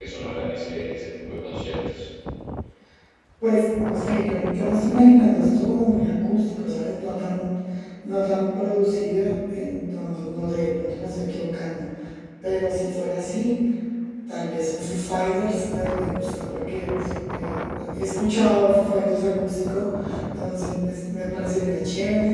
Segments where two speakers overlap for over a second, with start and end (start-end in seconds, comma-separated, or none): 18.0-19.3